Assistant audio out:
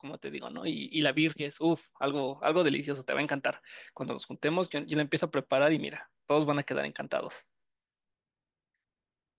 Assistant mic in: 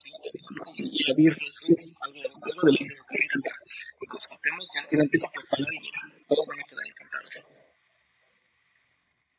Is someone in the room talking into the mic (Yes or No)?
No